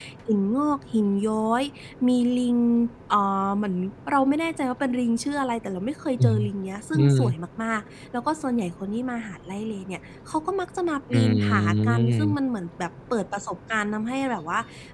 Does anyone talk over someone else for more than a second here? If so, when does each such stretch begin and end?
11.1-12.4

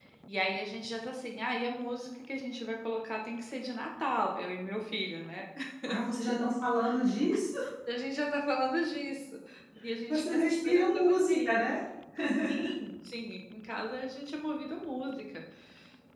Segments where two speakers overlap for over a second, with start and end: 10.1-11.7

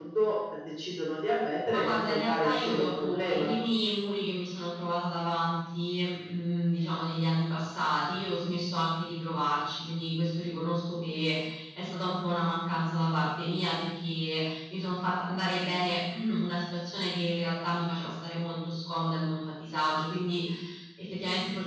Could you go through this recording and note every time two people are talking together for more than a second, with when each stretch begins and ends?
1.7-3.5

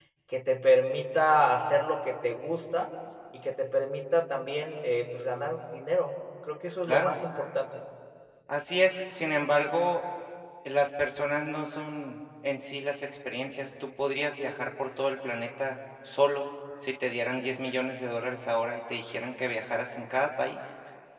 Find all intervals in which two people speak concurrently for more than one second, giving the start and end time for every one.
none

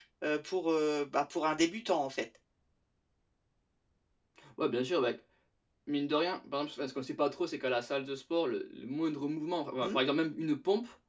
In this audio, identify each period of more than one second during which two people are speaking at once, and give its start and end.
none

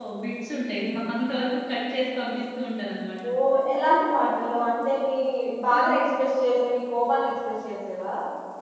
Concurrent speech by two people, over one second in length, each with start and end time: none

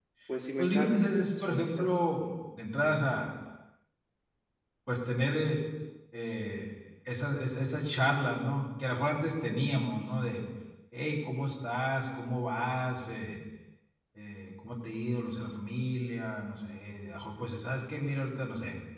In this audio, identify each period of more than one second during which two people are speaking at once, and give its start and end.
0.6-1.9

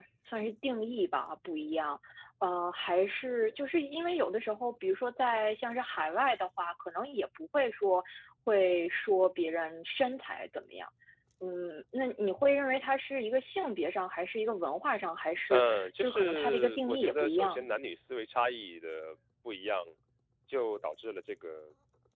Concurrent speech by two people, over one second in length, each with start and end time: 15.5-17.7

